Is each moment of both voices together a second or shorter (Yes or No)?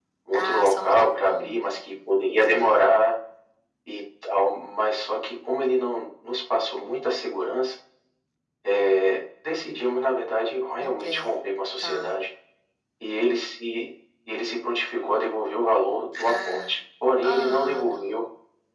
No